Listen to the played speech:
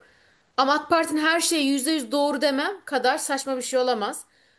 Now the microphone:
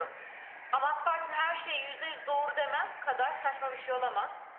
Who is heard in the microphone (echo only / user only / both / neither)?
echo only